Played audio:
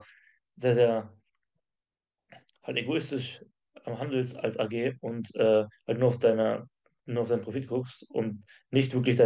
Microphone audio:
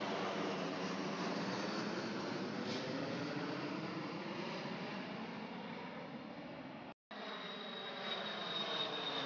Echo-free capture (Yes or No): Yes